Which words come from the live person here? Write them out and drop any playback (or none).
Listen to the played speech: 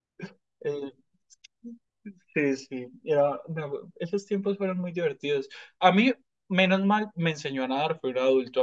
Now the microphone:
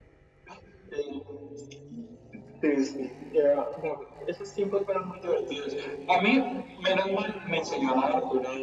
none